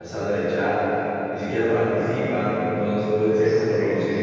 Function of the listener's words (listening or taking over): listening